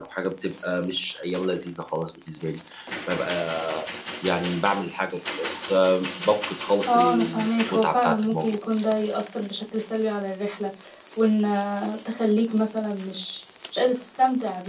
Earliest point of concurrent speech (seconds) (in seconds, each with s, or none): 6.9 s